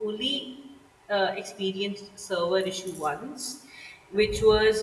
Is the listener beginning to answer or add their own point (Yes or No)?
No